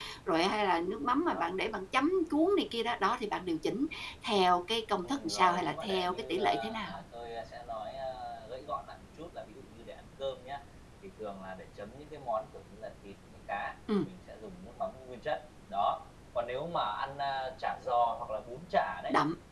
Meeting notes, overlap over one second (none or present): present